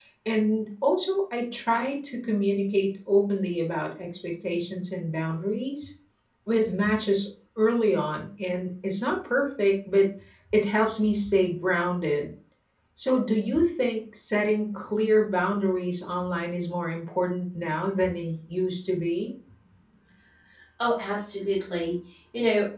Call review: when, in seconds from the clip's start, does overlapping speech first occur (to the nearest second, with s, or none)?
none